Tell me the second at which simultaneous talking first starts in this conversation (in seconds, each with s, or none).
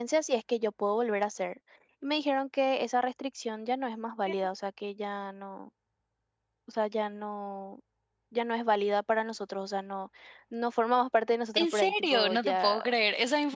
11.6 s